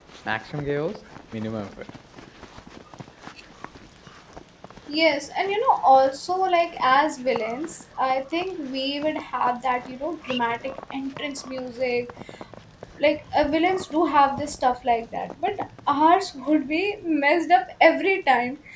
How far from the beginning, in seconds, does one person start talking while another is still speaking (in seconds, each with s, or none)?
none